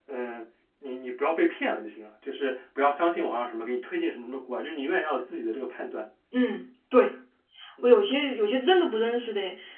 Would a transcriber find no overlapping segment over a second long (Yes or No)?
Yes